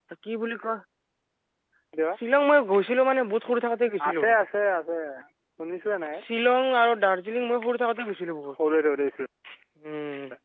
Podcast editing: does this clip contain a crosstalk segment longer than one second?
No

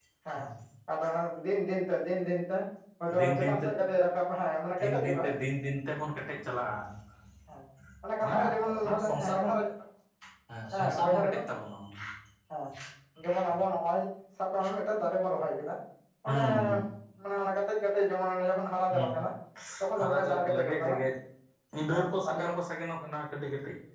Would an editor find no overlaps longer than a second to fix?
No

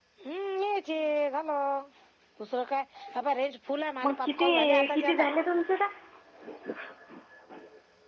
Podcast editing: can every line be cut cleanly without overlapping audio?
No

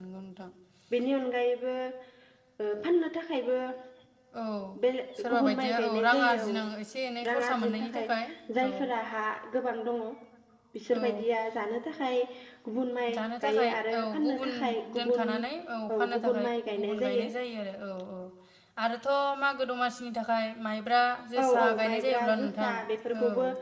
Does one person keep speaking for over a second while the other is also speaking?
Yes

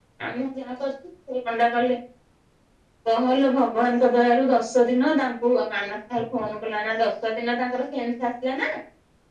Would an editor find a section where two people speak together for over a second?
No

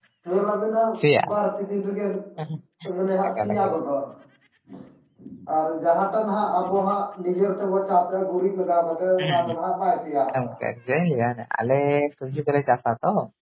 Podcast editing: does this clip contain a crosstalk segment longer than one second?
No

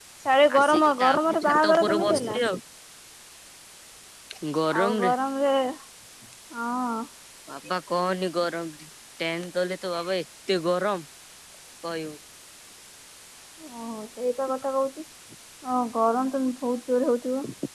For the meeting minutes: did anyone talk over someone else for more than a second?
Yes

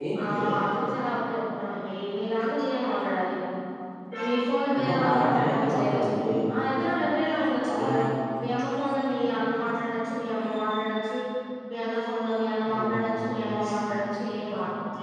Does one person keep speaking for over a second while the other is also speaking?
Yes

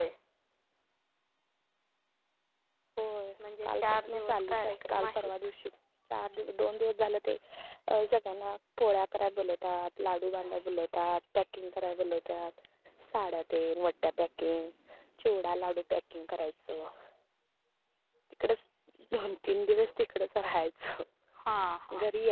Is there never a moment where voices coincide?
No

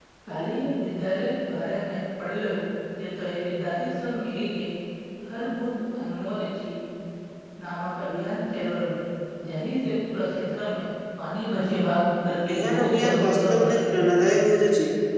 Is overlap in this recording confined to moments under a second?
No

